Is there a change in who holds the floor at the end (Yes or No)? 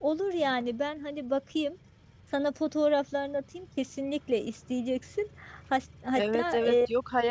Yes